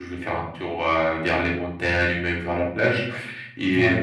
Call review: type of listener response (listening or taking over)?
listening